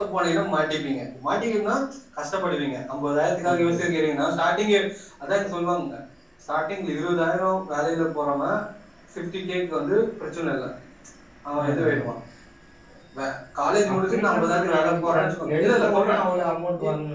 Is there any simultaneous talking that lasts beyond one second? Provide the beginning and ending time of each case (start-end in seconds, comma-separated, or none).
13.9-16.1